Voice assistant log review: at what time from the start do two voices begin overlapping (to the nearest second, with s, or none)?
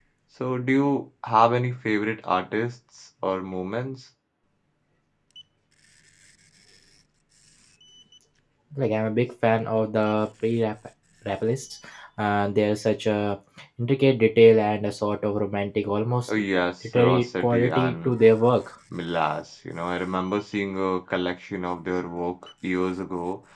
17 s